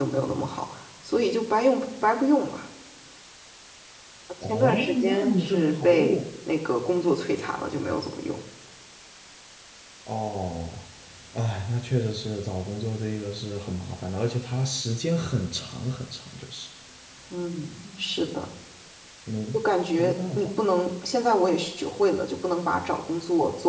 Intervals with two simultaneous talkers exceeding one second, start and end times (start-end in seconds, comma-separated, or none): 4.4-6.2